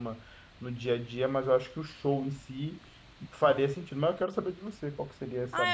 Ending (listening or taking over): taking over